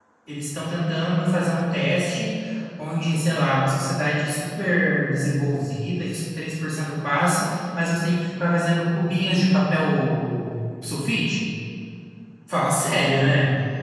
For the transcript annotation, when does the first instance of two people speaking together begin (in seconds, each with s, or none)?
none